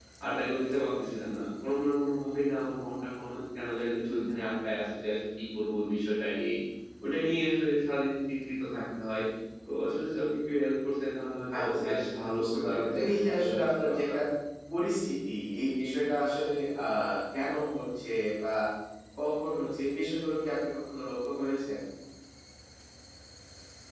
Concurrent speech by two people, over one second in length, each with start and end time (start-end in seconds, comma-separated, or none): 11.5-14.1